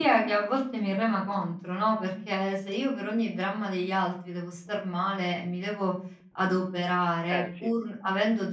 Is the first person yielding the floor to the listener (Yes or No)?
No